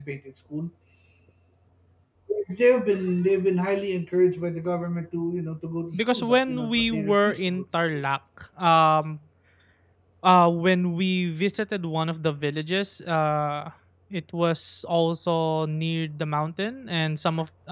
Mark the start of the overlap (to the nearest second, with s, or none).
6 s